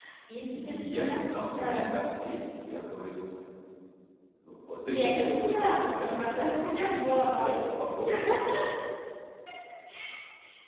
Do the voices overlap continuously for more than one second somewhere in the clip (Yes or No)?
Yes